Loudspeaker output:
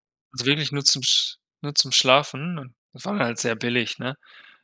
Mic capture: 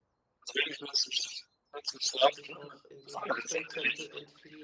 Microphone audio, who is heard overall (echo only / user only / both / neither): both